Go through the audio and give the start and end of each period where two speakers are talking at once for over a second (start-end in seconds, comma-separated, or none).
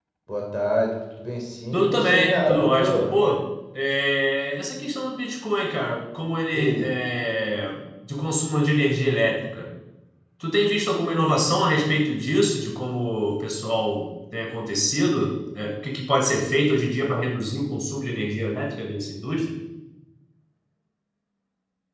1.7-3.1